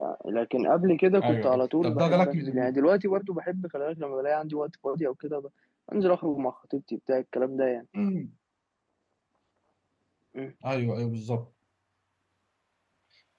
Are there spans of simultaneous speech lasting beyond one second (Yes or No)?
Yes